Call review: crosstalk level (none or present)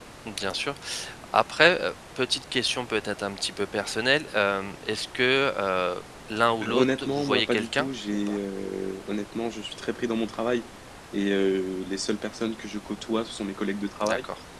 present